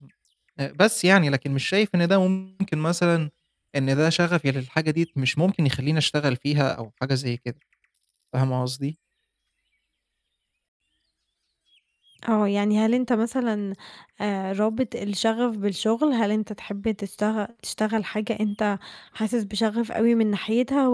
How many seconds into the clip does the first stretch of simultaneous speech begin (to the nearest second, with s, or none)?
none